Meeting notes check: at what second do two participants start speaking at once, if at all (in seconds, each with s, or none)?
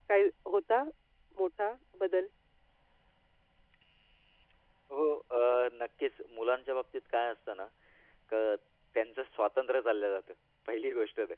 none